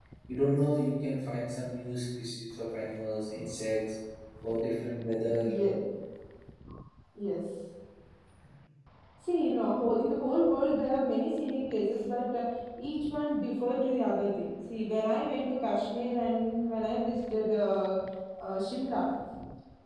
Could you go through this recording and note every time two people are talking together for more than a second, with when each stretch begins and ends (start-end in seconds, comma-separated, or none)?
none